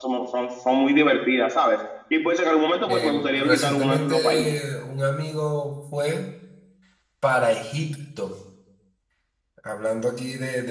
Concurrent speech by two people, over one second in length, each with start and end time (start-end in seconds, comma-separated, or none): 2.9-4.5